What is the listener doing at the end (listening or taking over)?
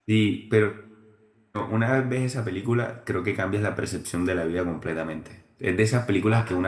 listening